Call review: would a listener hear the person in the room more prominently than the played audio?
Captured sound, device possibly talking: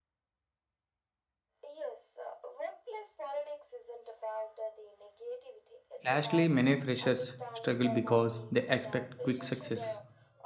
Yes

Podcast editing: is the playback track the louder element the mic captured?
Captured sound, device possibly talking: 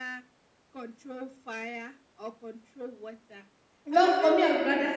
No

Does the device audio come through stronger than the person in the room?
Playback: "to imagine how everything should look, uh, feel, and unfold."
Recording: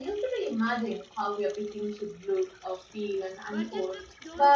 Yes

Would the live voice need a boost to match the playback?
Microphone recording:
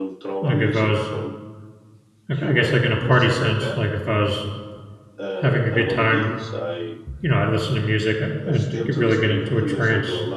No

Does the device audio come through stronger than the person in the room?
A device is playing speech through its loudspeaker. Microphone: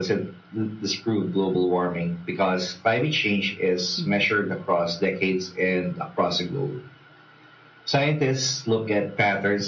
Yes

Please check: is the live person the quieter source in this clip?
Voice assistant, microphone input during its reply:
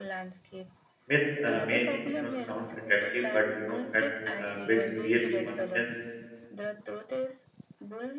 No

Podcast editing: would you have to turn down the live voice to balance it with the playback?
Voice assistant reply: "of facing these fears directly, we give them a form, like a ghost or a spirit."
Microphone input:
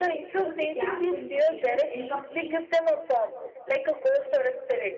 No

